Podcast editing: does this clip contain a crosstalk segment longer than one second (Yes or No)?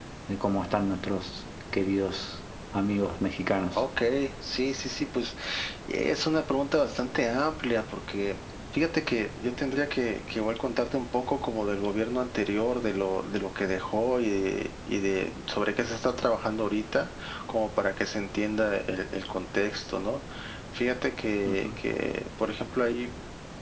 No